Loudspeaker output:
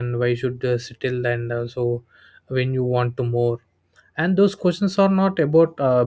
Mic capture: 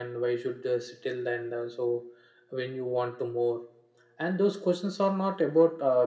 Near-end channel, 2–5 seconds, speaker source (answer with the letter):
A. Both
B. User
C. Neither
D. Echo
D